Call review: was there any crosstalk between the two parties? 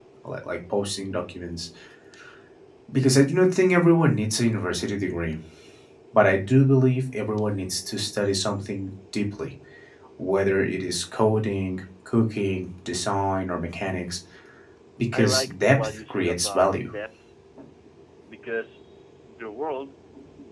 Yes, from 15.1 s

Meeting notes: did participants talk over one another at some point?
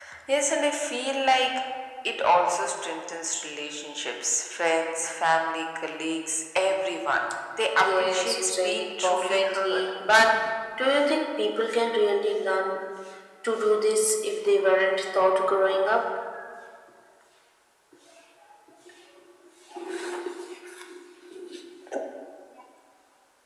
Yes, from 7.8 s

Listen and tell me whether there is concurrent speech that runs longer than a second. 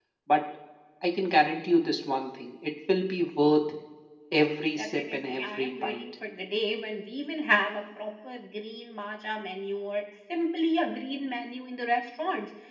Yes, from 4.8 s

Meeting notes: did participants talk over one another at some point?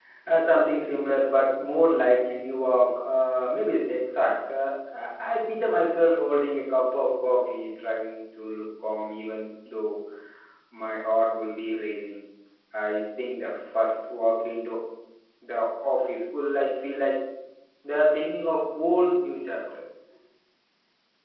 No

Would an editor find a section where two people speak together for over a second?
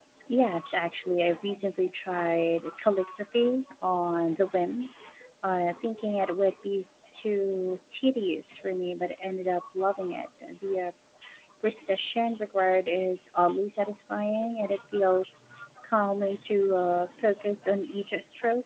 No

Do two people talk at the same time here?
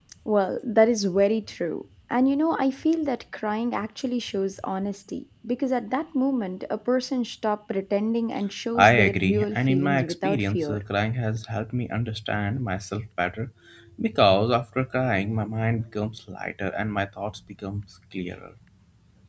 Yes, from 8.8 s

